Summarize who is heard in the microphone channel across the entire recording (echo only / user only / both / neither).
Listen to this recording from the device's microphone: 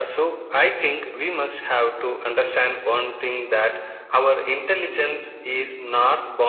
echo only